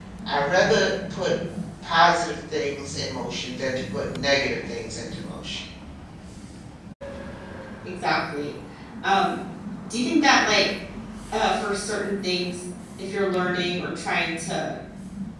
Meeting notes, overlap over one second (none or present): none